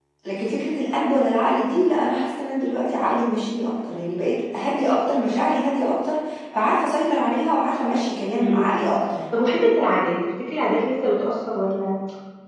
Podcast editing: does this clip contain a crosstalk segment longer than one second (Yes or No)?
No